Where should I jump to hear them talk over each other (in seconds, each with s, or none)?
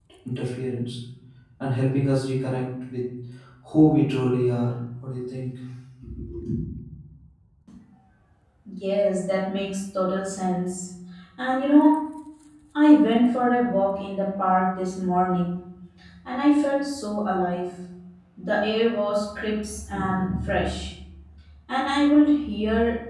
none